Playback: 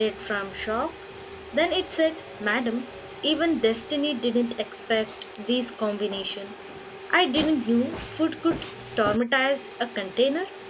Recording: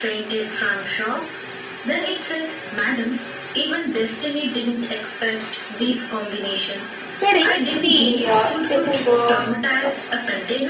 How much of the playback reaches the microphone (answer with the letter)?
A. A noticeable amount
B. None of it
A